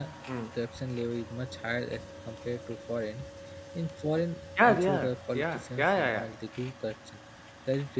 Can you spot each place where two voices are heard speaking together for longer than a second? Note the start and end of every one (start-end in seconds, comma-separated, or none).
4.7-6.3